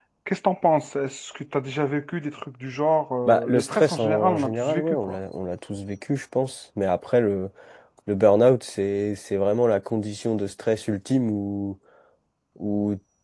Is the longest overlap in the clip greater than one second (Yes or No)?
Yes